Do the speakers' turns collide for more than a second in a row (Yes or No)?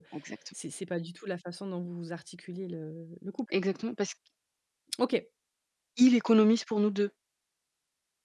No